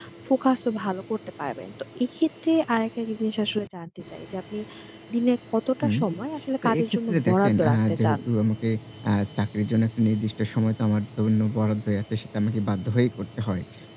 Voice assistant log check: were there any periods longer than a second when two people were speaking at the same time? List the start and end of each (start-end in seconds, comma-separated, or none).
6.6-8.2